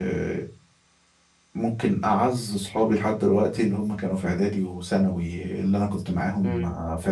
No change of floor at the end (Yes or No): Yes